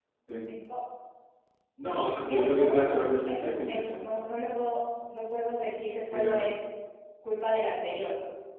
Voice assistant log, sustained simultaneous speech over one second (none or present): present